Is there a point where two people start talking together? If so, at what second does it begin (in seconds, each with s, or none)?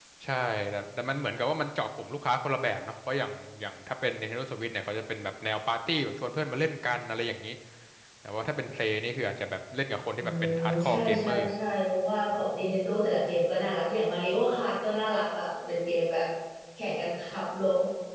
10.2 s